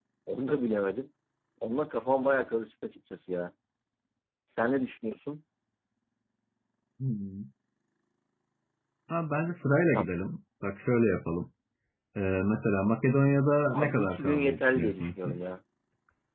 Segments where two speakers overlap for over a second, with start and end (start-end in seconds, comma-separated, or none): 13.7-15.5